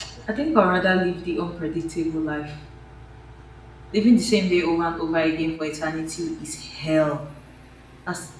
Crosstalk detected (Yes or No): No